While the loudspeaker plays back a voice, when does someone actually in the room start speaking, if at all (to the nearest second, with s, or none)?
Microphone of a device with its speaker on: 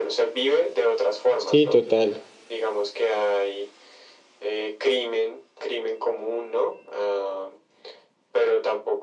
1 s